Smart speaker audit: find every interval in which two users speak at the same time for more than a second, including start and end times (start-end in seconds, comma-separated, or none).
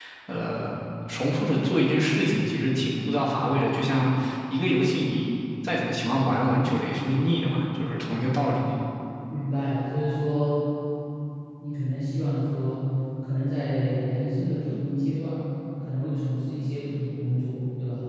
none